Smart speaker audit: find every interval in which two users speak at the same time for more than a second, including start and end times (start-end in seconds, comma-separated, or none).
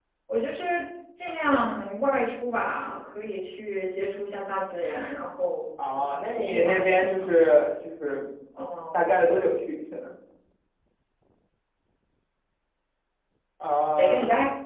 6.0-7.3